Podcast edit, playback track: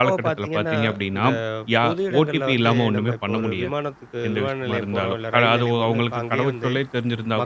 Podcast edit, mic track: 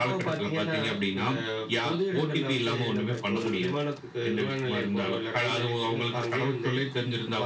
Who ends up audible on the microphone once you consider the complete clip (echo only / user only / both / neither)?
echo only